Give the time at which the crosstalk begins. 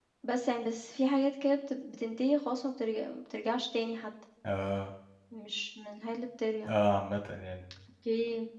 none

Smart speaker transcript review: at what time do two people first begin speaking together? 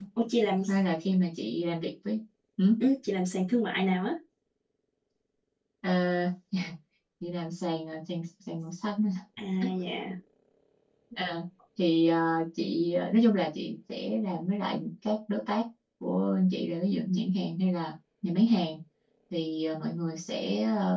none

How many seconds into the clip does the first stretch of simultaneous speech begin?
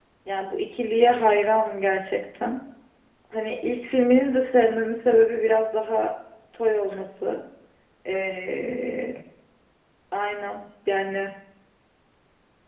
none

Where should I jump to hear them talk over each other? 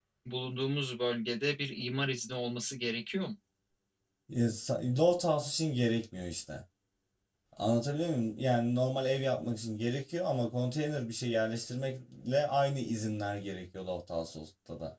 none

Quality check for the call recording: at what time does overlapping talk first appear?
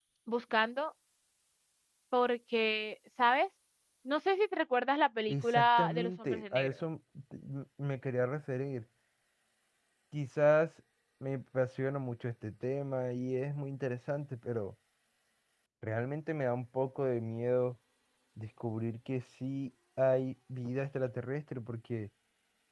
5.3 s

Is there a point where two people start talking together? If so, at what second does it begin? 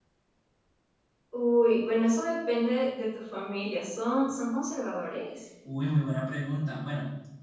none

